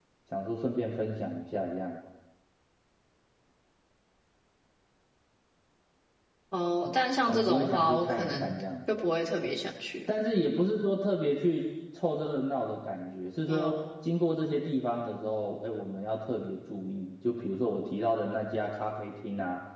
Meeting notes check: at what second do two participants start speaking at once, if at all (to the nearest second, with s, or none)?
7 s